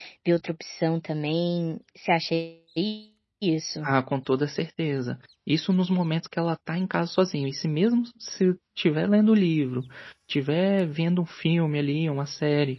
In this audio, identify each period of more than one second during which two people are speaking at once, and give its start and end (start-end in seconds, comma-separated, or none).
none